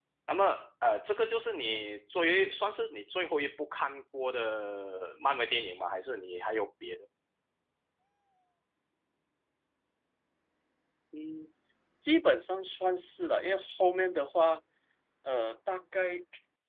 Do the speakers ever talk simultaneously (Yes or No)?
No